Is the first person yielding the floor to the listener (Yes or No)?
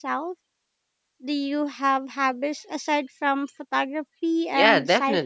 Yes